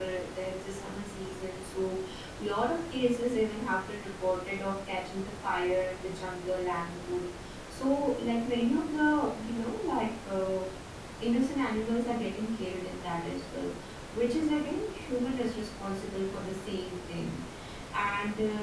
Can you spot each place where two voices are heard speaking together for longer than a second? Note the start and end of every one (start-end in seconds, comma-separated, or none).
none